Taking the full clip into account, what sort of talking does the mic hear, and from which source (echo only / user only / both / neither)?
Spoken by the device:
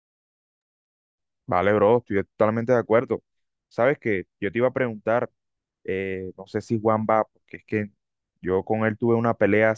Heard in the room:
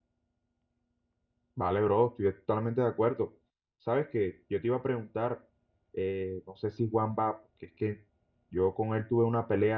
echo only